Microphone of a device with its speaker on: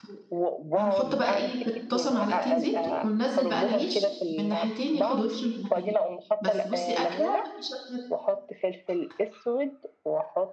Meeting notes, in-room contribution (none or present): present